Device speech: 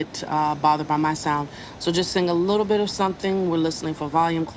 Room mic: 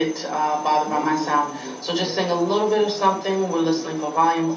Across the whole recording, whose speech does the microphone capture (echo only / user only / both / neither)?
both